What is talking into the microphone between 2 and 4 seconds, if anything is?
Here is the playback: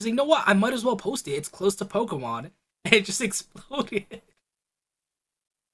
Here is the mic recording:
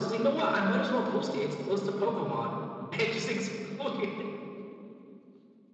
echo only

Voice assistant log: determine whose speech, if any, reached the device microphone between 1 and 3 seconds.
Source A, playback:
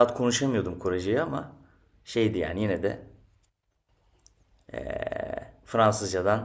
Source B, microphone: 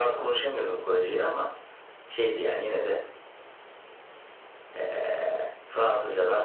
echo only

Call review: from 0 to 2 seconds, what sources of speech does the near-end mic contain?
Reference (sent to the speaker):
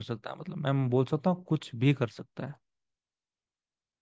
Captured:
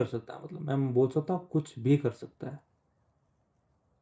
echo only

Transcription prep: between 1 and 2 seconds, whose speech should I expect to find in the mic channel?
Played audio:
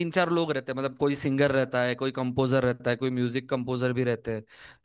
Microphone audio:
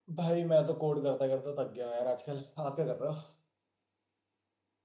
user only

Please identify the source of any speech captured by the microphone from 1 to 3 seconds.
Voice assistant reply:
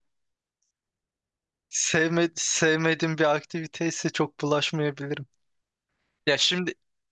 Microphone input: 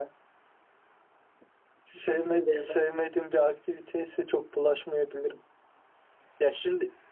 both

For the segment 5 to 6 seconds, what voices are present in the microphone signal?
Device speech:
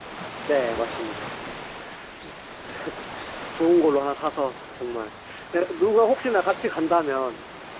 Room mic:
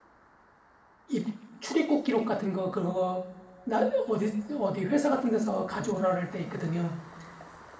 user only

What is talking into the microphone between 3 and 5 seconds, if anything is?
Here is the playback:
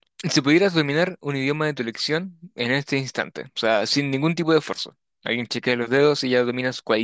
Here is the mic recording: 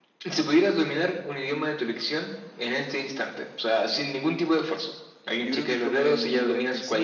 echo only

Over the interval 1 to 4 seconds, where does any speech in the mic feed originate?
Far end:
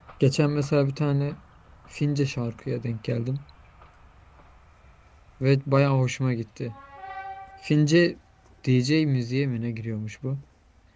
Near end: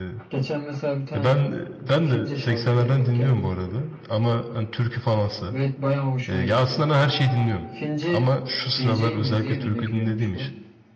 both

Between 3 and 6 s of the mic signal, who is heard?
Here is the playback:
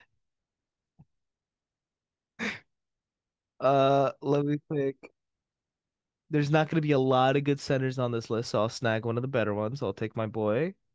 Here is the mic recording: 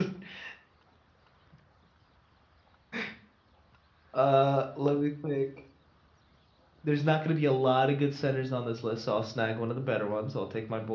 echo only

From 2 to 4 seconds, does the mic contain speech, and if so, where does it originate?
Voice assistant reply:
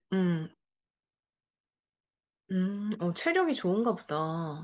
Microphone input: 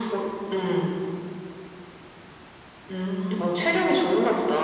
echo only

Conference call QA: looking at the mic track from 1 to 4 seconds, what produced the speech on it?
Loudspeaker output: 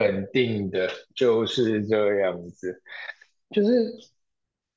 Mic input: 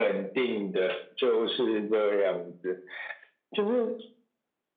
echo only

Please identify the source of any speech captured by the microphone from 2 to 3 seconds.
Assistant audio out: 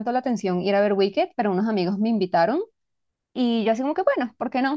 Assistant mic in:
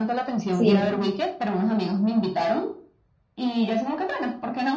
echo only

